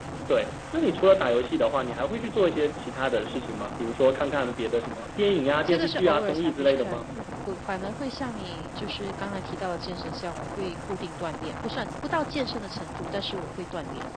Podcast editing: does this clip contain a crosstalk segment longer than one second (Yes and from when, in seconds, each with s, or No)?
Yes, from 5.7 s